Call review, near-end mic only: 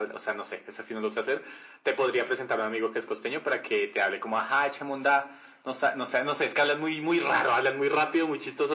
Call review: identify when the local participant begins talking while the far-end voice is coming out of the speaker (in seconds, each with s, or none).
none